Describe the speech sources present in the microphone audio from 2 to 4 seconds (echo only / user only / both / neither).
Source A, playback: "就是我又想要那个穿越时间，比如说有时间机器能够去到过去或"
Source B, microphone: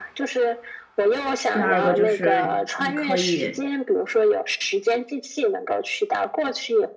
both